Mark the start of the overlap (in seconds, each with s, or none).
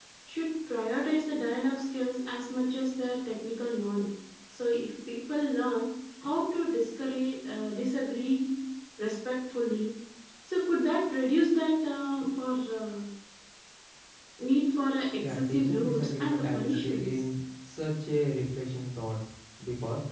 15.2 s